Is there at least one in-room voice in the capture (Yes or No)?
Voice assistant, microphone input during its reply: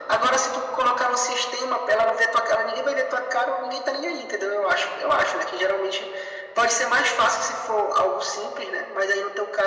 No